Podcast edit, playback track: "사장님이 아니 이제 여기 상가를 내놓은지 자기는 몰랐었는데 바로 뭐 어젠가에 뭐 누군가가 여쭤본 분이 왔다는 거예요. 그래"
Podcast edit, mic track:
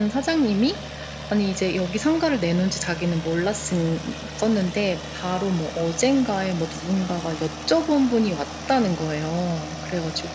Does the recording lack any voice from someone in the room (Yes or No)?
Yes